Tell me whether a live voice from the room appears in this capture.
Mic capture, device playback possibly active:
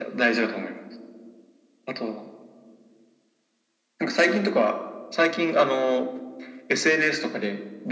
No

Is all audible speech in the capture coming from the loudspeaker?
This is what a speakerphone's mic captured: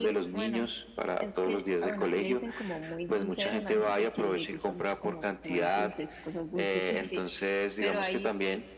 No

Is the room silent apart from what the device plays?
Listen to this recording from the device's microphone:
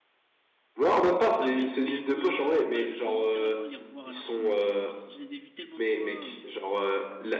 No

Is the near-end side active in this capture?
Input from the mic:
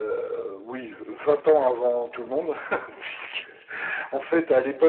No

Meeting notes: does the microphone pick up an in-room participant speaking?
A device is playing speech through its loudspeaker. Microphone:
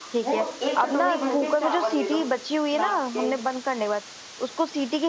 Yes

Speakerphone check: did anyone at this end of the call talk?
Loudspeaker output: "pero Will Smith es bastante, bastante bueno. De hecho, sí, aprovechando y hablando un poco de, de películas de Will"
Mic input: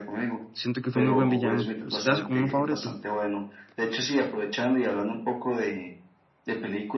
Yes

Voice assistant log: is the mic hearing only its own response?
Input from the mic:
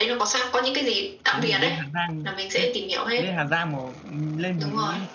No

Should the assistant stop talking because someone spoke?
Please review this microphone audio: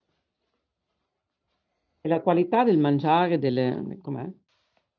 Yes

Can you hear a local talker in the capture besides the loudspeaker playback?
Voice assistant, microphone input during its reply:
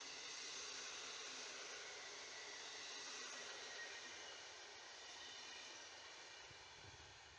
No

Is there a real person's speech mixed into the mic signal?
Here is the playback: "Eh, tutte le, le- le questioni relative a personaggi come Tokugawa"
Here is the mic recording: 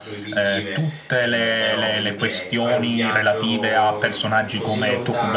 Yes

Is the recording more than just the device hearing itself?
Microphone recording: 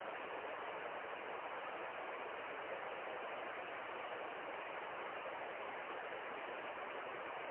No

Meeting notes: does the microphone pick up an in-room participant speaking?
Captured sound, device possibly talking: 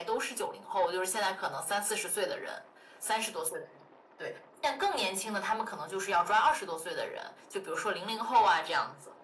No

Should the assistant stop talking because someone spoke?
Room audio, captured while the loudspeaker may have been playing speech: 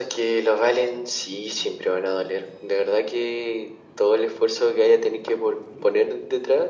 No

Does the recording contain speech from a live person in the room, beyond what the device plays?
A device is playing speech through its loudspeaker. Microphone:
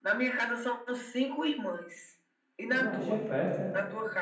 Yes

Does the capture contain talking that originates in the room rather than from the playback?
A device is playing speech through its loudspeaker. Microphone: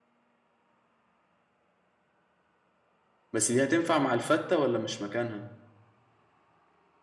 Yes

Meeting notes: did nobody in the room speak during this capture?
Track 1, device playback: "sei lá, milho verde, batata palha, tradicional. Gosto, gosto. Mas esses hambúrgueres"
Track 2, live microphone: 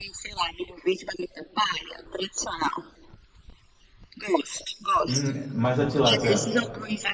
No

